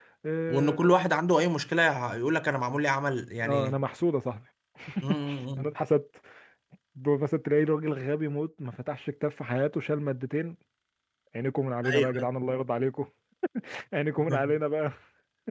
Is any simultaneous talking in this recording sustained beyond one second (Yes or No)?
No